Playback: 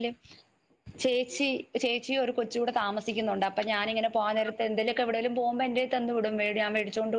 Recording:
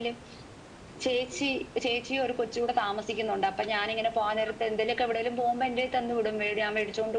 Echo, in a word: present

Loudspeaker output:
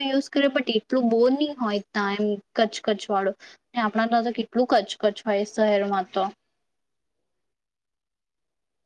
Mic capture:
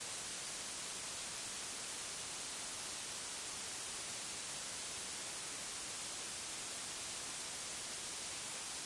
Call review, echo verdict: none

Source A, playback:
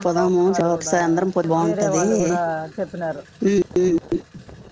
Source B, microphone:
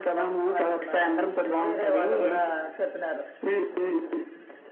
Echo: present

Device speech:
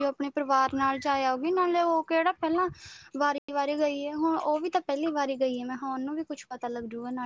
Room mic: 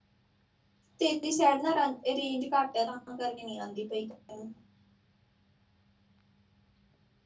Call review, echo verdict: none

